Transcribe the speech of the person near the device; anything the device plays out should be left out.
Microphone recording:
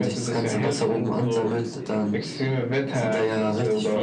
none

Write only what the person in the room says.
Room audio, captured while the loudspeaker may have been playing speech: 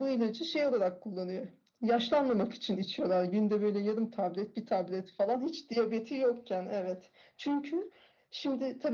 none

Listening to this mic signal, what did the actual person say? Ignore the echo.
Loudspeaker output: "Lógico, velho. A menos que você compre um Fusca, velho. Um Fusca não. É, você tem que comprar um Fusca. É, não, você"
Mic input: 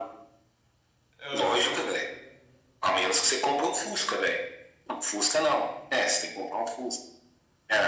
Ô, você vai-

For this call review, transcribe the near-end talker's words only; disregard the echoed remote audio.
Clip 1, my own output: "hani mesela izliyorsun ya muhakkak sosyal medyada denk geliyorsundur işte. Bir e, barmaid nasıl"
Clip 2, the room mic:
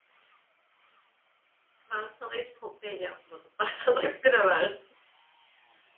Ben sana hiç kokteyl yapmadım. Ben sana hep bira verdim.

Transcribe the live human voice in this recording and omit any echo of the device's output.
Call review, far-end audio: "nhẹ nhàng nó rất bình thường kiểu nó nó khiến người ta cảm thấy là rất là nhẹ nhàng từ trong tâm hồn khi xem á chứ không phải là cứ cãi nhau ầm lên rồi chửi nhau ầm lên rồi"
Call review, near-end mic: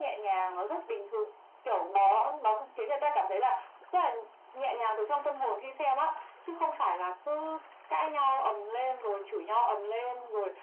none

